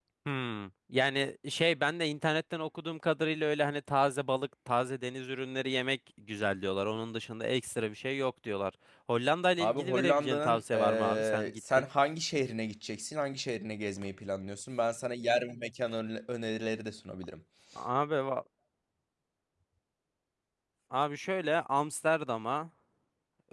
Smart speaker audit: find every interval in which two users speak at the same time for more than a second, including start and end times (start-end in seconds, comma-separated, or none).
9.6-11.9